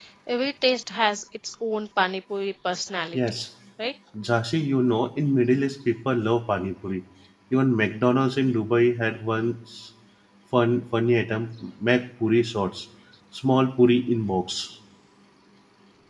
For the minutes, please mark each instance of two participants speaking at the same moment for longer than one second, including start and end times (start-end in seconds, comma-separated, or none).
none